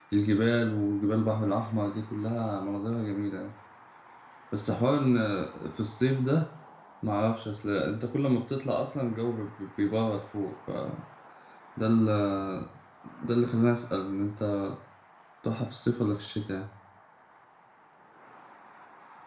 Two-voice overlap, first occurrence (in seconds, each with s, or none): none